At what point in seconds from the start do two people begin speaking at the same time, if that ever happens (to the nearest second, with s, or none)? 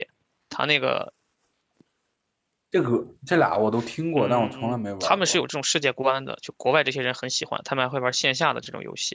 4 s